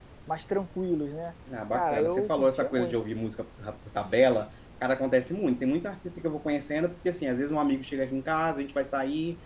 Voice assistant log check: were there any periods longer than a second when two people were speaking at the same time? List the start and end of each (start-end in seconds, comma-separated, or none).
1.7-3.0